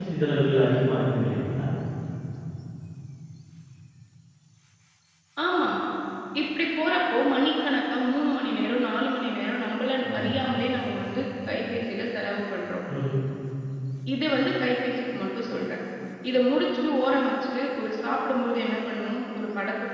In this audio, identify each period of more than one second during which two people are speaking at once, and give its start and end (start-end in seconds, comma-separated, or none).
none